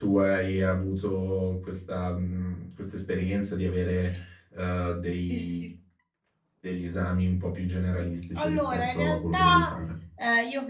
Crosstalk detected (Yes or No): Yes